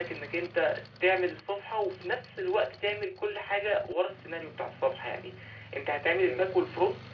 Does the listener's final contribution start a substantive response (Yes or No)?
No